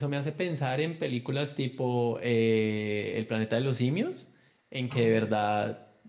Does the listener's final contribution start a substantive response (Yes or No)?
No